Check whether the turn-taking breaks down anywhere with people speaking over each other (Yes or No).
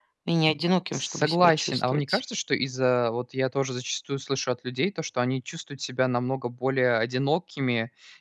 Yes